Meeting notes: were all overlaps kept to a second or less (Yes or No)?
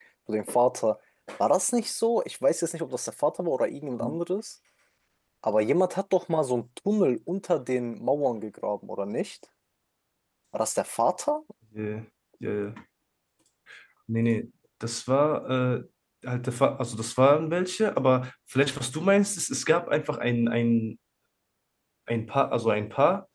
Yes